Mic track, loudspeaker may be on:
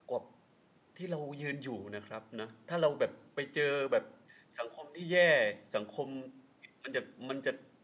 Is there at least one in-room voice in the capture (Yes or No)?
Yes